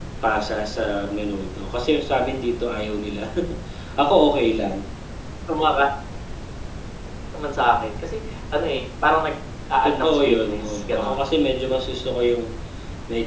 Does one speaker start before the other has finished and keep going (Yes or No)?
Yes